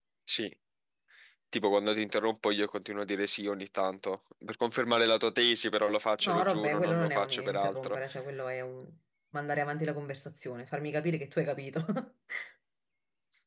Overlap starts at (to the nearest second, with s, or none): 6 s